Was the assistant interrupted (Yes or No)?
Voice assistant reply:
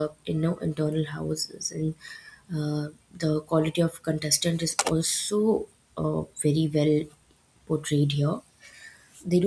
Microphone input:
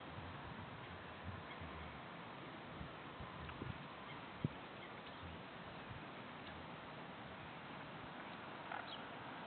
No